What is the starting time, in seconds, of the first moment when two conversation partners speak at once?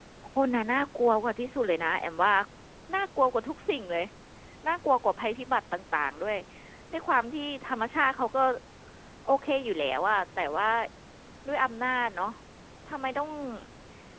none

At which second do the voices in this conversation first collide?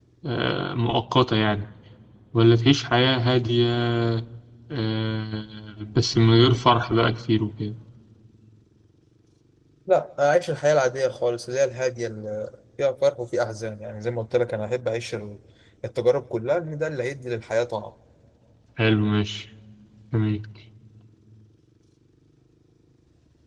none

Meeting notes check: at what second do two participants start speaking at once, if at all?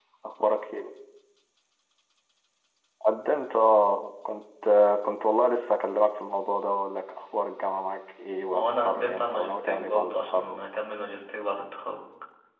8.3 s

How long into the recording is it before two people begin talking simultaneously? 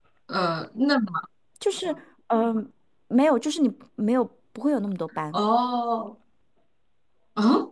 none

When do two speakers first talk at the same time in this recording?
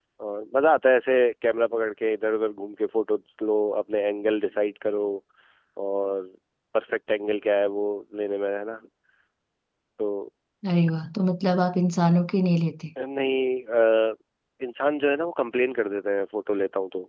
none

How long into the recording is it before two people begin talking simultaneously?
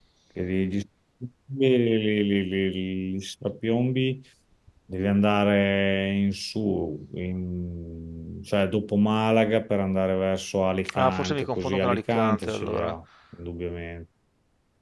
10.9 s

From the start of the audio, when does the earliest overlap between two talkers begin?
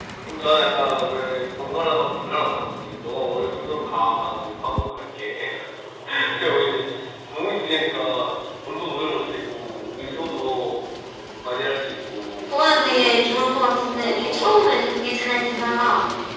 12.5 s

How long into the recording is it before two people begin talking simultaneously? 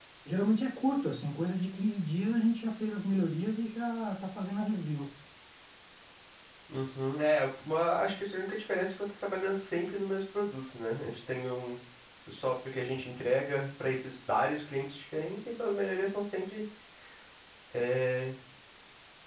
none

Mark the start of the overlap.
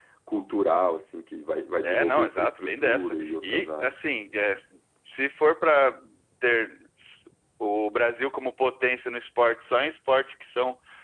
1.8 s

